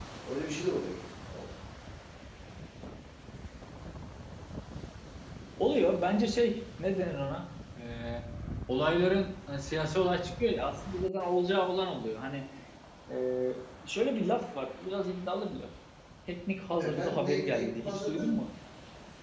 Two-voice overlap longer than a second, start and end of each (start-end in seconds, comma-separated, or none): 16.8-18.3